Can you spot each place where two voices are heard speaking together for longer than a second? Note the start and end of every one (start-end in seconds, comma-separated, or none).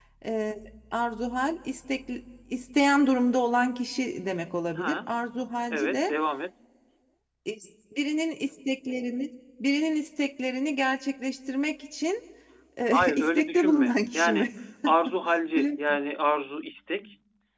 12.9-14.5